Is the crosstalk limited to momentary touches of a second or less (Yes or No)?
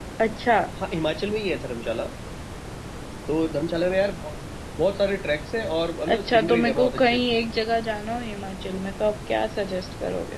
No